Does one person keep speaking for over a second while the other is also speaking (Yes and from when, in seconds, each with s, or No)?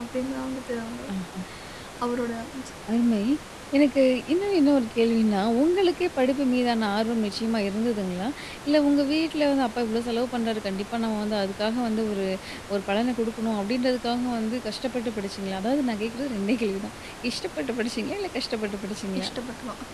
No